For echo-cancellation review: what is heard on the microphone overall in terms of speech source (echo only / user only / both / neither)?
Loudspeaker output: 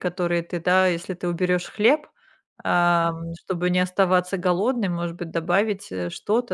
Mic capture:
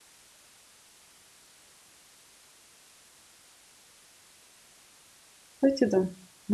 user only